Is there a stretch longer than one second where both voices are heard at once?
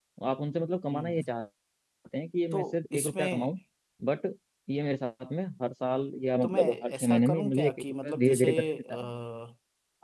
Yes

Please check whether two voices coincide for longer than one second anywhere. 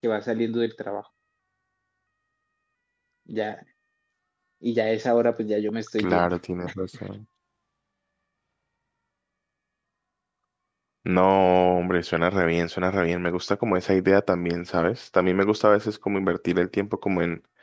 No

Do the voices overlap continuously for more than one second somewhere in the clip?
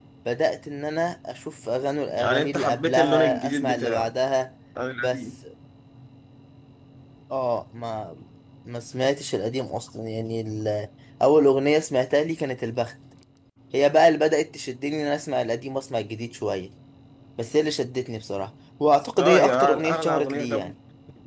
Yes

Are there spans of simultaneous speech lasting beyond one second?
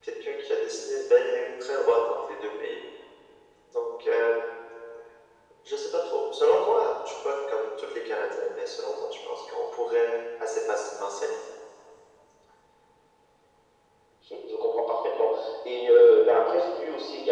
No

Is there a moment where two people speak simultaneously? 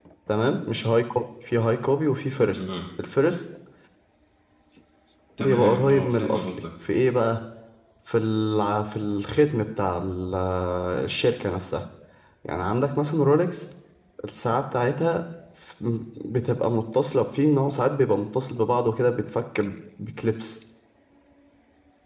Yes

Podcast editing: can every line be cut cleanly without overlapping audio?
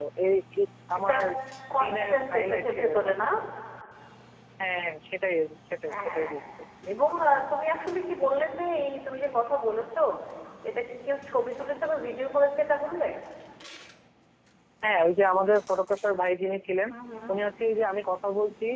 No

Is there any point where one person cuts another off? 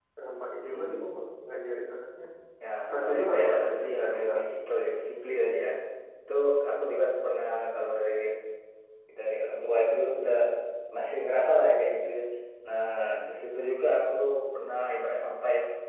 Yes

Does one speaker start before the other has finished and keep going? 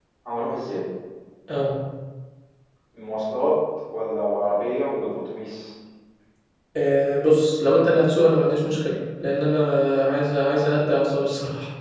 No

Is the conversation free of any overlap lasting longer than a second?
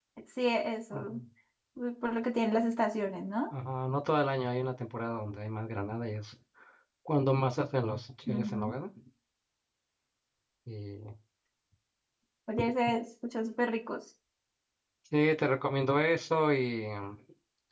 Yes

